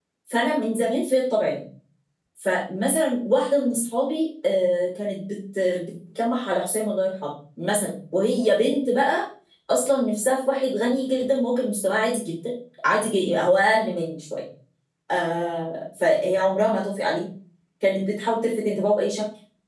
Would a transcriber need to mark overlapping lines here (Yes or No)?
No